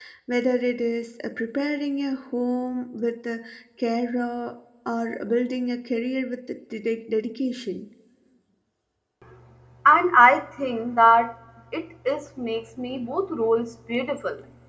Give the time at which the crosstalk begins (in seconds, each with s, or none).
none